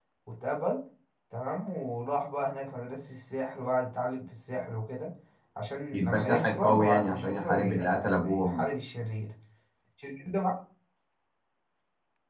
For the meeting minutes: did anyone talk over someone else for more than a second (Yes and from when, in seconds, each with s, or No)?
Yes, from 5.9 s